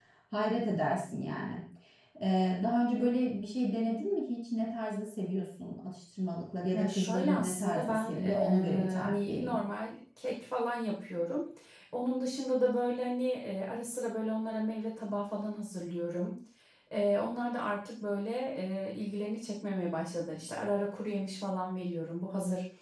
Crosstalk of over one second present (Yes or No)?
Yes